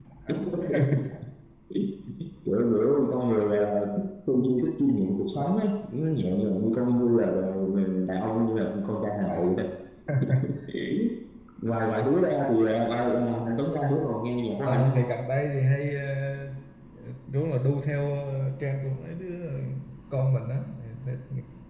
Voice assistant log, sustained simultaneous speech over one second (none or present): none